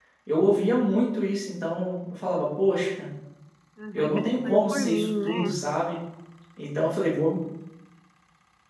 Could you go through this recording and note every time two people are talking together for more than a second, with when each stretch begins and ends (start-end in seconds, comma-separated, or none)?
3.9-5.5